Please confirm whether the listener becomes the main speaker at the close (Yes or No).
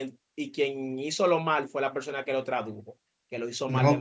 Yes